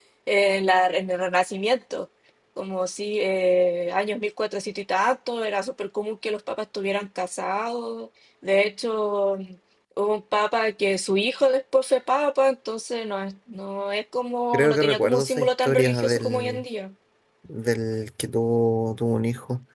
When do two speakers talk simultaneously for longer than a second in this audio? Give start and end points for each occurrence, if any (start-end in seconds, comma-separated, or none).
14.5-16.6